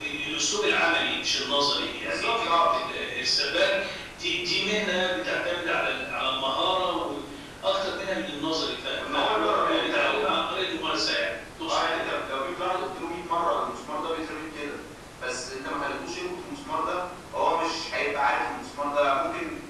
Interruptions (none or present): present